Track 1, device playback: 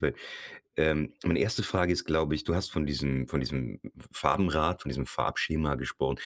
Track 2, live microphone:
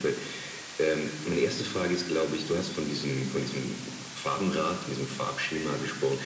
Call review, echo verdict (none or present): present